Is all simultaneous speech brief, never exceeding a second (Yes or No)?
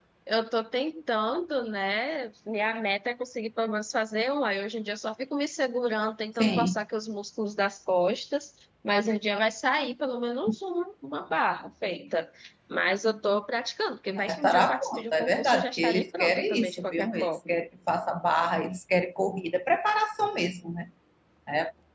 No